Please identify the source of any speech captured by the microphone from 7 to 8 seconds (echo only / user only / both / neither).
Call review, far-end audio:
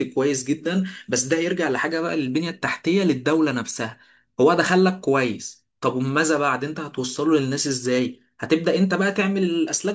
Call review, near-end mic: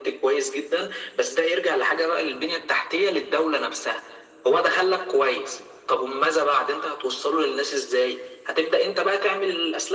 echo only